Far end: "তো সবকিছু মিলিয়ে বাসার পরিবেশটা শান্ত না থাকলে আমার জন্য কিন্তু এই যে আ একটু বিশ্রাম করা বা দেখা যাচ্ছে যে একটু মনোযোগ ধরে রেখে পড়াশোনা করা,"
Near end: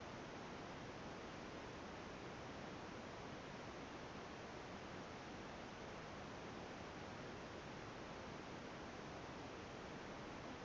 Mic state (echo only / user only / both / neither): neither